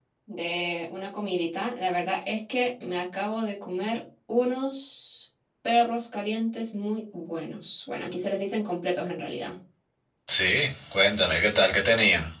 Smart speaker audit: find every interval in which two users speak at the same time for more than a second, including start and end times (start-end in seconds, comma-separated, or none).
none